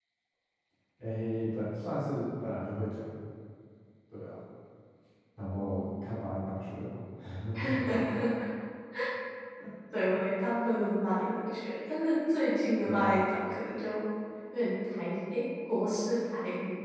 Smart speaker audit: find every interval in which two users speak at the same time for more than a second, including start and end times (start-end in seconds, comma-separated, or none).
none